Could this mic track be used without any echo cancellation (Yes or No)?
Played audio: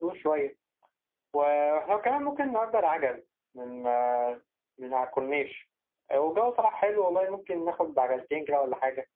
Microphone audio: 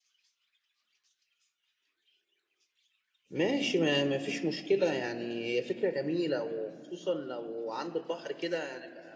Yes